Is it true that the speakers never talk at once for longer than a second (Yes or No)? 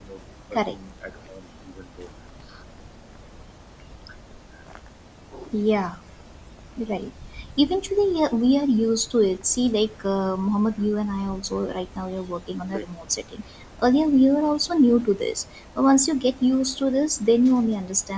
Yes